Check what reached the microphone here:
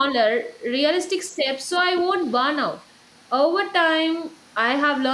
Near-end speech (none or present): present